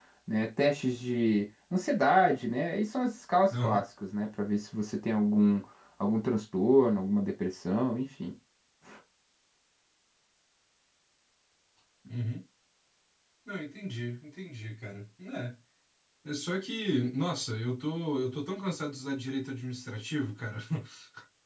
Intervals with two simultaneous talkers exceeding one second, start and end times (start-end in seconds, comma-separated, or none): none